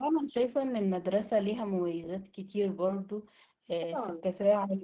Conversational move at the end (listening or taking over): listening